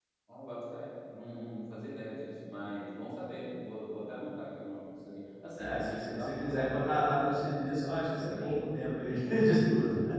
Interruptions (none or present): present